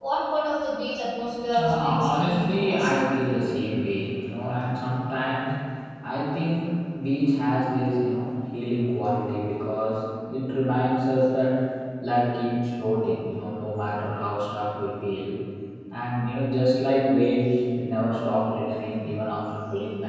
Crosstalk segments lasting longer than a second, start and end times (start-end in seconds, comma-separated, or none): 1.6-3.0